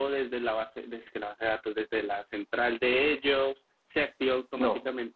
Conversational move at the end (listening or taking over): listening